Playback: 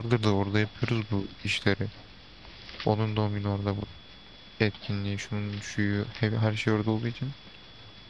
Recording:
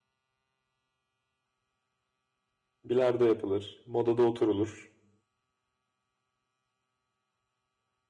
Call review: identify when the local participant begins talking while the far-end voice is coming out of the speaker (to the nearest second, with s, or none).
3 s